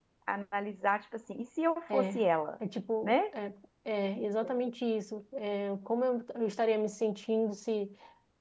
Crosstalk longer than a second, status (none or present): none